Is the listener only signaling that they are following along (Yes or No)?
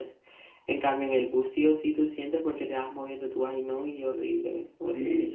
No